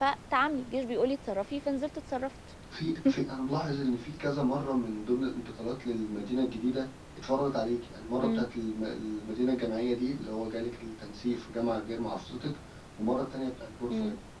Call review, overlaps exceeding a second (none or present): none